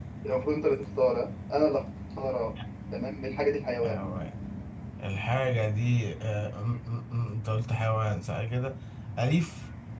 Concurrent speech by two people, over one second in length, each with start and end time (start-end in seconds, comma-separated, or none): none